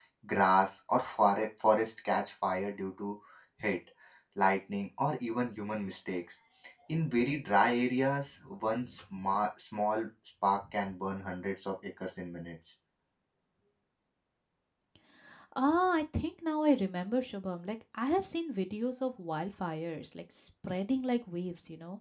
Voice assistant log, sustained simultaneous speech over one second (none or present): none